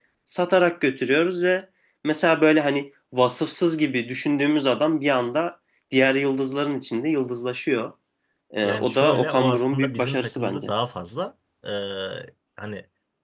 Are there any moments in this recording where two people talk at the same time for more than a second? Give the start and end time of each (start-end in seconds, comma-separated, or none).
8.6-10.7